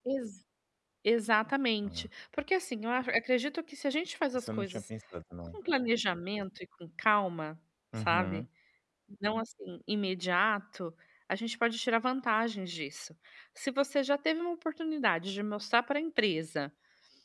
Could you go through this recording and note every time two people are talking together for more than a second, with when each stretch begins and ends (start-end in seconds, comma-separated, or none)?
none